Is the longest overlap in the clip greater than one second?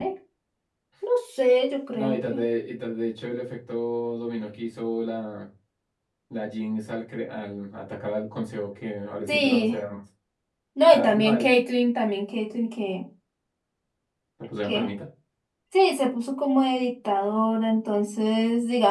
No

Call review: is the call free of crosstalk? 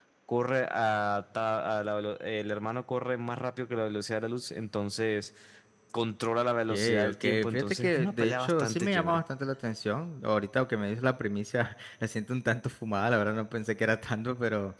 No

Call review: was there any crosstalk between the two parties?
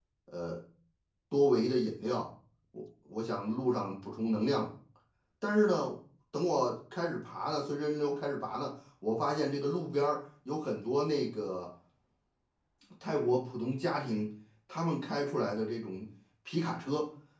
No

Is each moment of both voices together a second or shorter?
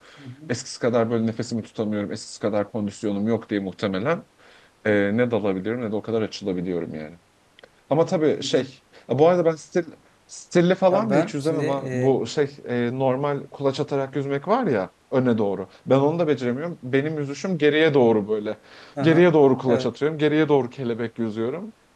No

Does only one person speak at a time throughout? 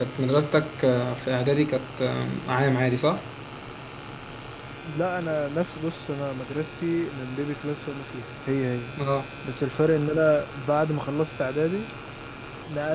Yes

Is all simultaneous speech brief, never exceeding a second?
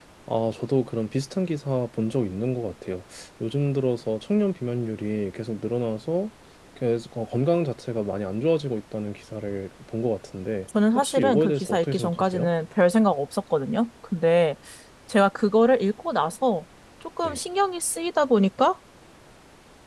No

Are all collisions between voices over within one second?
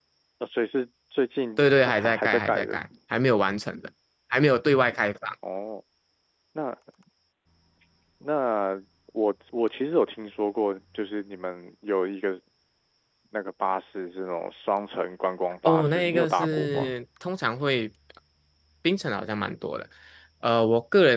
No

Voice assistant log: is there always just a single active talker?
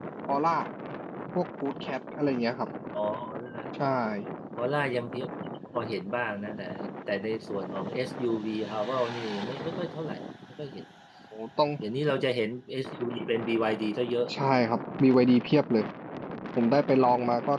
Yes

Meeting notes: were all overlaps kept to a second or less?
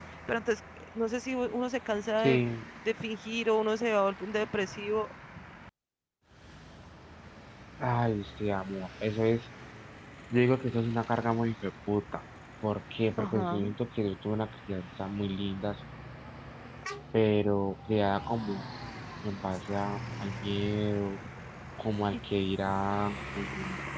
Yes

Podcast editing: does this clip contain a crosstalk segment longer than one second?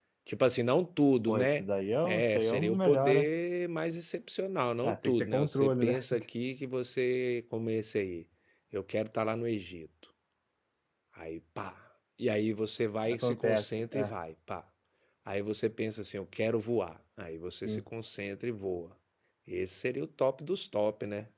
Yes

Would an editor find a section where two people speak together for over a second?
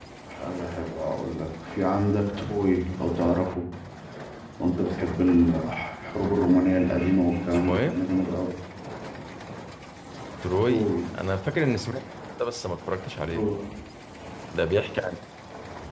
No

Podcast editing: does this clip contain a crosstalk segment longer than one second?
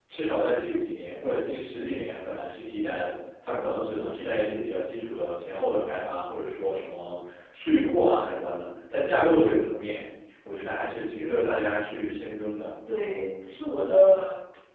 No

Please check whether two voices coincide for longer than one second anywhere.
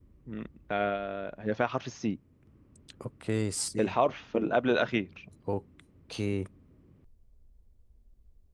No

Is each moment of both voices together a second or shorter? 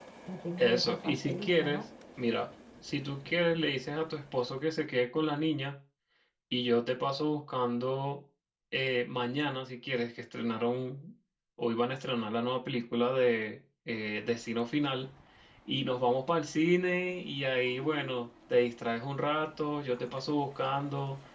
No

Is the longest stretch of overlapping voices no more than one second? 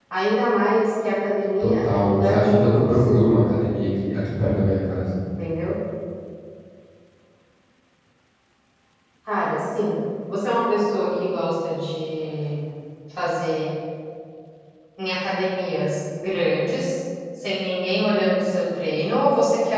No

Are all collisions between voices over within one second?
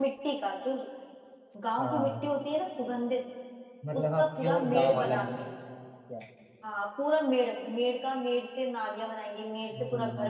No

